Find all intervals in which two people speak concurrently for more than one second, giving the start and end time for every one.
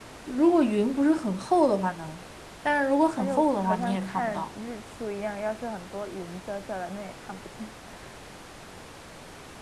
3.1-4.5

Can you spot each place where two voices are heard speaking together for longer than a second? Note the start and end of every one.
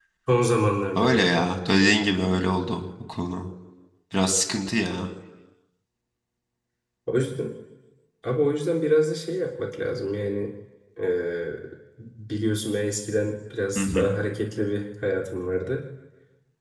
none

